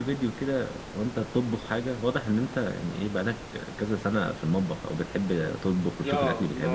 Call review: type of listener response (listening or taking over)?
taking over